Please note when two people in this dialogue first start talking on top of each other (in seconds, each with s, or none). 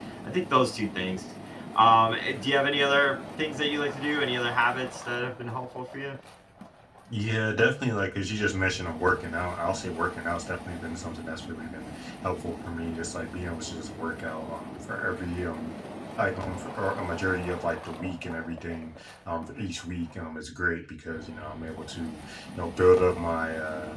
none